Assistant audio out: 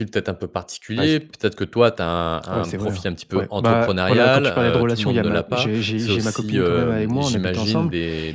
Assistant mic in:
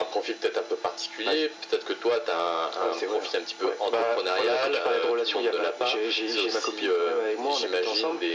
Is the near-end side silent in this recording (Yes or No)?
Yes